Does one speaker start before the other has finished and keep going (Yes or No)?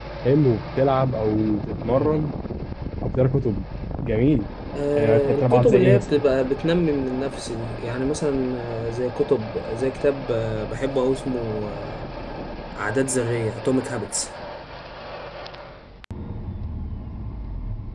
Yes